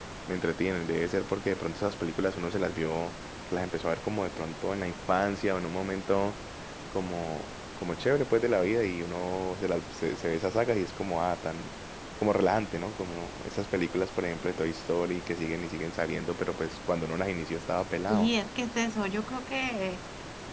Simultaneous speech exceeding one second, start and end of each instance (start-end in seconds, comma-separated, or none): none